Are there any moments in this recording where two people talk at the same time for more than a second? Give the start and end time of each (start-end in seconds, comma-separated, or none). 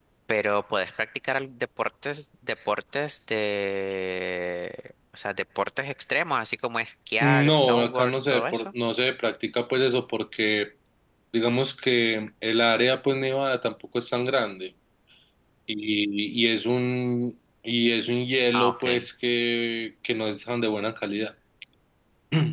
7.2-8.7